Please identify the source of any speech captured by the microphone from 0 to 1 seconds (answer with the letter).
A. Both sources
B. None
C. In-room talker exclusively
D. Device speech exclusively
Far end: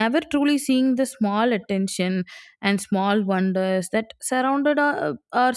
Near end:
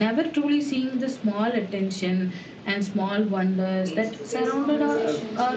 D